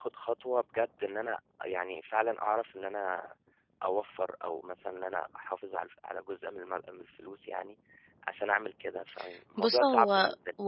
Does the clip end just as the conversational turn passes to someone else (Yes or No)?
Yes